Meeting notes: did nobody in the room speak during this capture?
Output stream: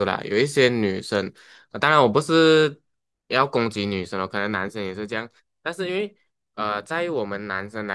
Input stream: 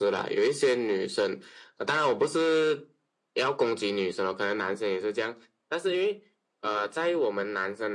Yes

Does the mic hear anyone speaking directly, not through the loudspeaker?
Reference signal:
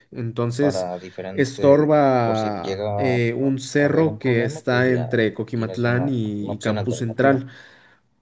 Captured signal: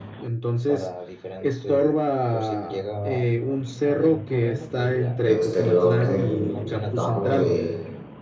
Yes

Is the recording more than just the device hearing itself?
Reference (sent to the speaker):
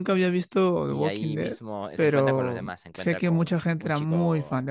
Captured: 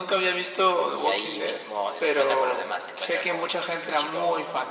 No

